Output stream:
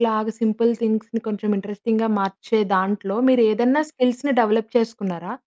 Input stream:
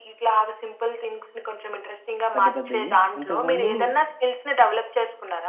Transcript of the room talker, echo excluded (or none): పెద్ద పెద్దయి. ఇంతకుముందు